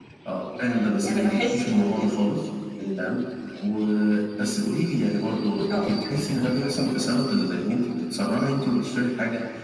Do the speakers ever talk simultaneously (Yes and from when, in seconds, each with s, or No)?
Yes, from 0.7 s